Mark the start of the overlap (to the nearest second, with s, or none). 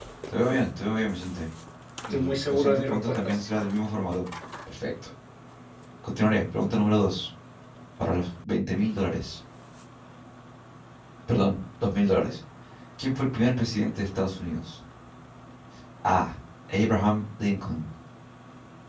2 s